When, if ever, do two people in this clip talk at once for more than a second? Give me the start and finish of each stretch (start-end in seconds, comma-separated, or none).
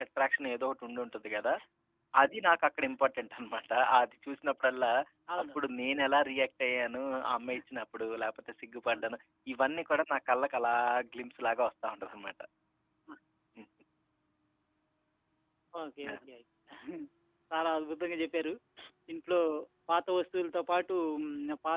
none